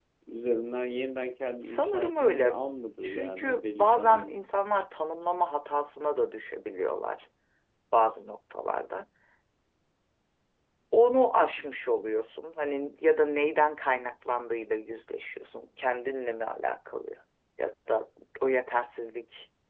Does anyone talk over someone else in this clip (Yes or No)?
Yes